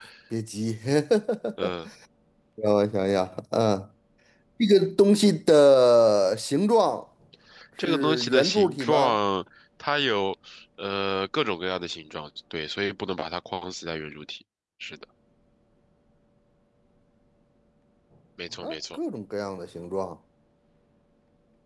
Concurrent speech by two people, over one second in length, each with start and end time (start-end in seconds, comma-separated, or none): 7.9-9.2